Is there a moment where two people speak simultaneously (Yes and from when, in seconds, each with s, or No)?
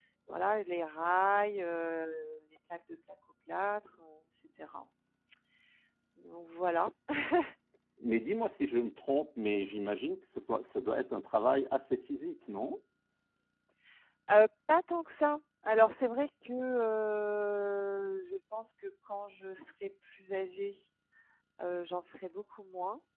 No